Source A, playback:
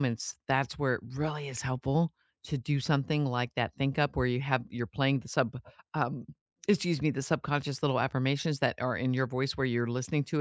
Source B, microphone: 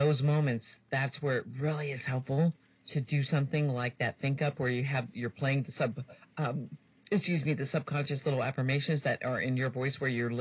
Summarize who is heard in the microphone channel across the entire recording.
echo only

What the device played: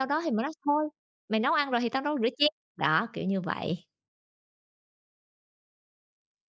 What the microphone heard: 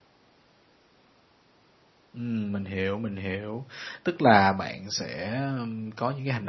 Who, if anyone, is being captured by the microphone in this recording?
user only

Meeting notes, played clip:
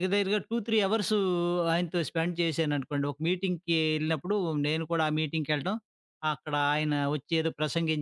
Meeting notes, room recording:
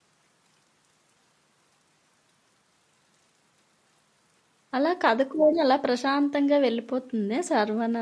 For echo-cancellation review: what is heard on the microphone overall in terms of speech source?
user only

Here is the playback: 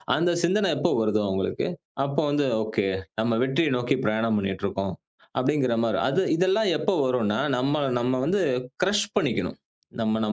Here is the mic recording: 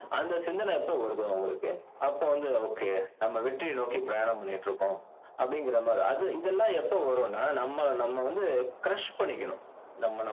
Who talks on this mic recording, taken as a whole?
echo only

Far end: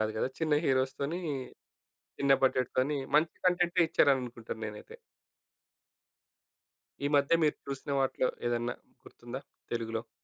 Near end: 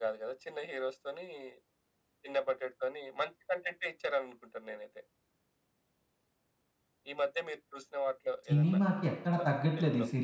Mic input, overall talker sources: both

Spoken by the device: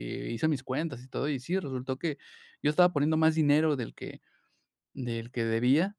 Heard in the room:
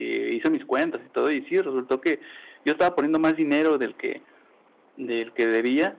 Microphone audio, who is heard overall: echo only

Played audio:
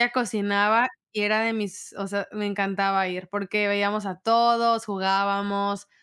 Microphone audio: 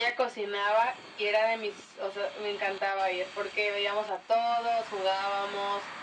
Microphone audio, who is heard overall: echo only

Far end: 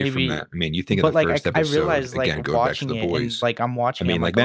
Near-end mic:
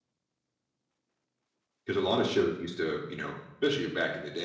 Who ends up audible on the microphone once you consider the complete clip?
user only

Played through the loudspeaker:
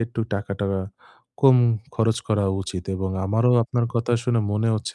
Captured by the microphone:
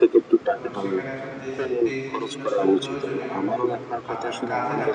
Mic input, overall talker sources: both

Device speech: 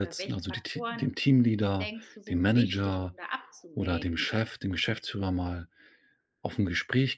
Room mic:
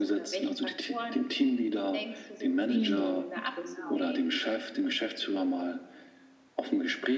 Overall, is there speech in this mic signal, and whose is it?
both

